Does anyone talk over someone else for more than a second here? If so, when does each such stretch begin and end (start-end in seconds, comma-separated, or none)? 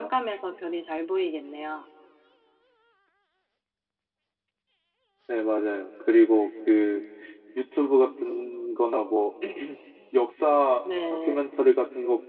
none